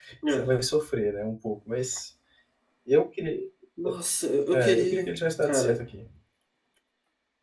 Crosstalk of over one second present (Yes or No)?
Yes